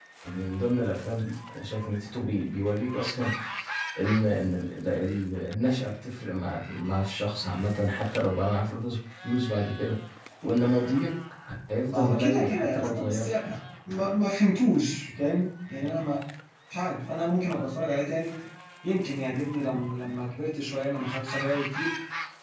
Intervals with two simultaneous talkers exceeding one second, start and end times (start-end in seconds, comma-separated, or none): 11.9-13.3